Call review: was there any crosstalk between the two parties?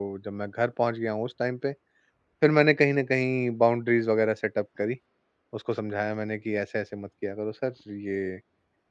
No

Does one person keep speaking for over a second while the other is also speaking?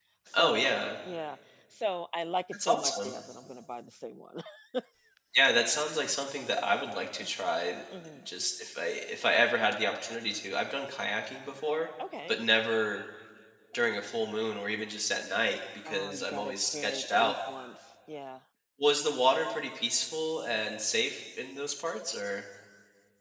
Yes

